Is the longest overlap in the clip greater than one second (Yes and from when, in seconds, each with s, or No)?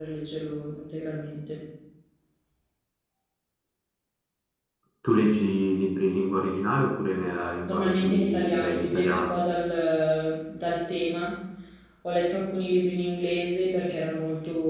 Yes, from 7.7 s